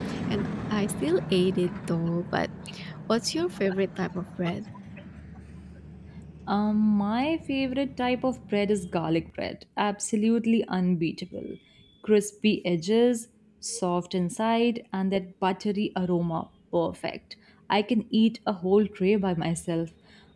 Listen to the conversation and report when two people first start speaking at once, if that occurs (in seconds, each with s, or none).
none